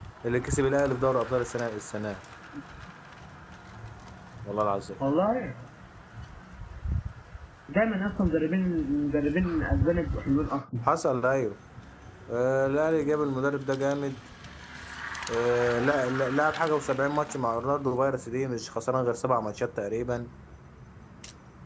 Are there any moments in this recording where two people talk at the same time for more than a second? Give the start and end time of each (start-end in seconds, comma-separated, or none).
none